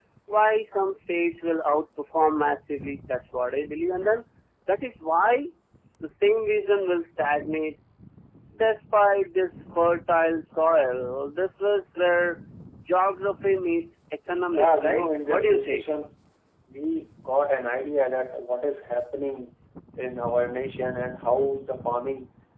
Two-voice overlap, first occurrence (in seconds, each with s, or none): 14.5 s